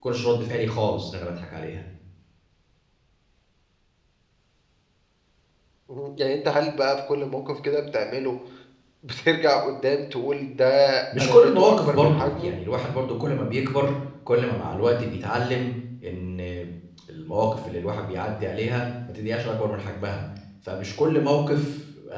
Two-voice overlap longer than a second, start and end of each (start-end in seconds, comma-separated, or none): 11.2-12.5